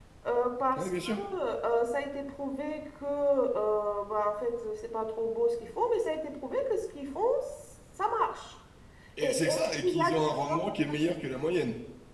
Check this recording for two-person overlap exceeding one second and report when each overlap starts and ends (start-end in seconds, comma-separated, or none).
9.2-10.8